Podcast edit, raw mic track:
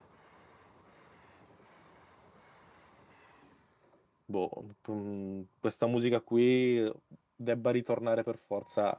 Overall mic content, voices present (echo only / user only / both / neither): user only